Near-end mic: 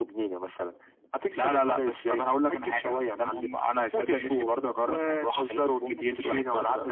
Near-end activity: none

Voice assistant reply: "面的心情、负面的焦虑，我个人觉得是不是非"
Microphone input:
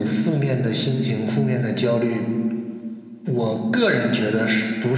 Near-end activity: none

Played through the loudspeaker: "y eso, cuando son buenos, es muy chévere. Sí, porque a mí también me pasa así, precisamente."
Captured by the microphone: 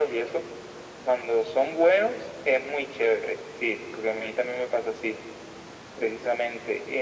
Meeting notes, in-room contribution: none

